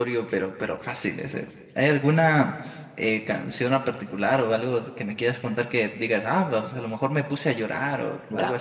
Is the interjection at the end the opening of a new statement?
Yes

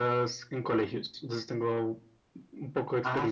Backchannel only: No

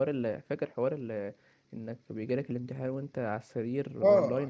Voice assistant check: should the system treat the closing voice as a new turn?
Yes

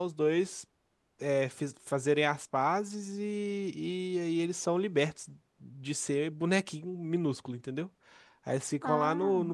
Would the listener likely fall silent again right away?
Yes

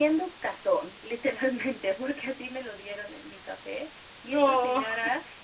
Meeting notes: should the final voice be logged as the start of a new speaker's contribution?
No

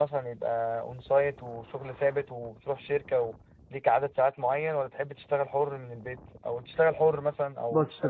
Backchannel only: No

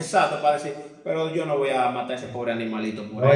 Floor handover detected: Yes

